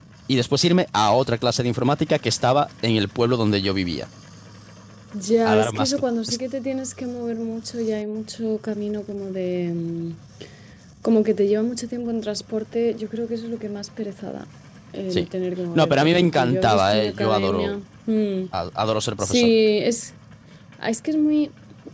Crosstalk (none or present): present